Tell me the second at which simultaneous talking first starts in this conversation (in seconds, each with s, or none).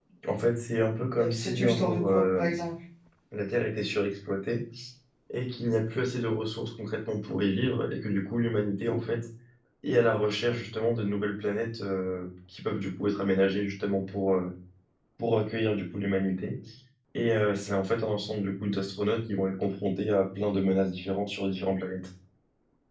1.2 s